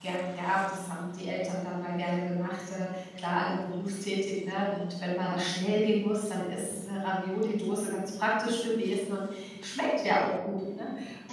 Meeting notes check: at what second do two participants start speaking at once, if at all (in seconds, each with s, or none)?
none